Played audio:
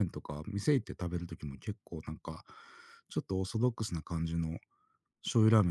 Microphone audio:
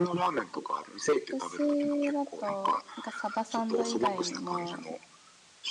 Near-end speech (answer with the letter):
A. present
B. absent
A